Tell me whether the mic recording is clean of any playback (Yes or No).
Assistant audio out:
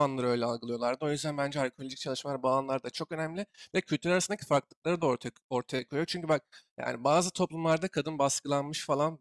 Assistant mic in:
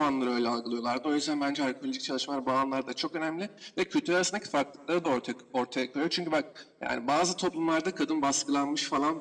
No